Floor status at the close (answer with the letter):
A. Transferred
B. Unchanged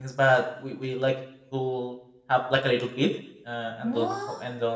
B